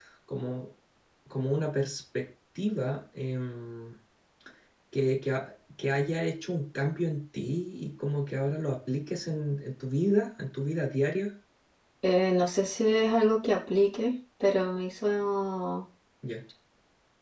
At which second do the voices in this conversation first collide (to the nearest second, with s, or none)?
none